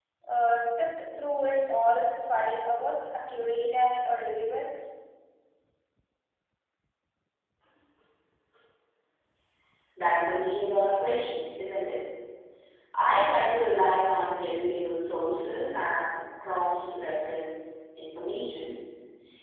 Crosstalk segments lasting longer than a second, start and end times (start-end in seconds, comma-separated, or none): none